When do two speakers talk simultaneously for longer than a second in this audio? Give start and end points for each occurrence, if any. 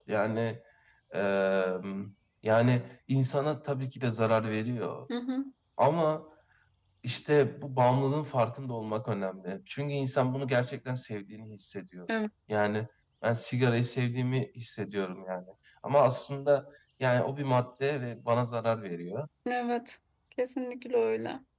none

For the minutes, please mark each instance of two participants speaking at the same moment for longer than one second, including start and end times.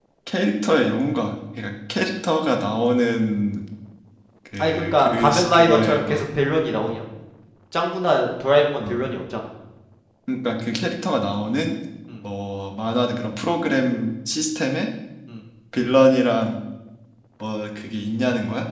4.6-6.2

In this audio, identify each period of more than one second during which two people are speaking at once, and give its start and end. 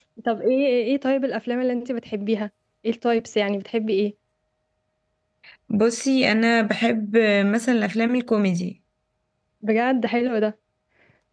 none

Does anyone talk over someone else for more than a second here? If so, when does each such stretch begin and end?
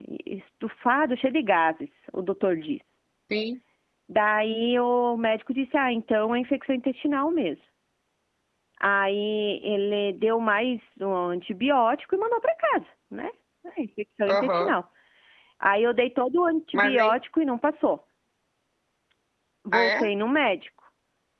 none

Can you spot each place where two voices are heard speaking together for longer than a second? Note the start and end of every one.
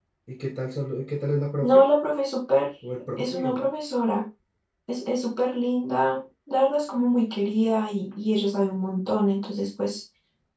none

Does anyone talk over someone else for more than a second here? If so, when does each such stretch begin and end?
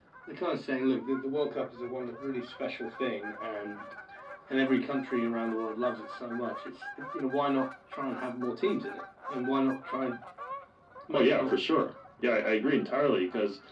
none

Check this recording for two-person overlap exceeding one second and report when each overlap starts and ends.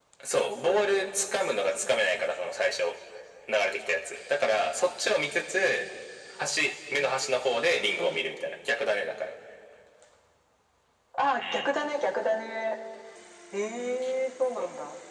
none

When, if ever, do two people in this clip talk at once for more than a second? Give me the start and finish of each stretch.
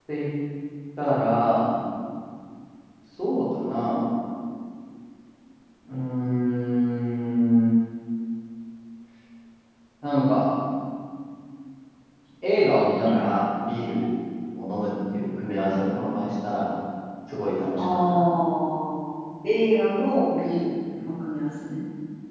none

